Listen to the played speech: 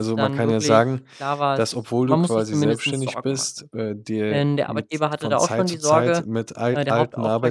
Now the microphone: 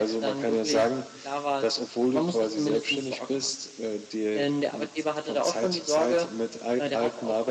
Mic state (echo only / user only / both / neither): echo only